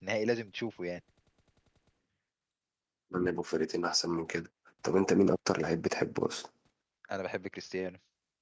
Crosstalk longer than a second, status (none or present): none